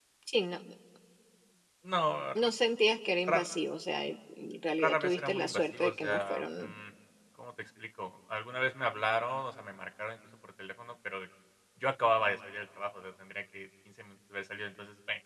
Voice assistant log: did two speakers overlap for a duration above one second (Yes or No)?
Yes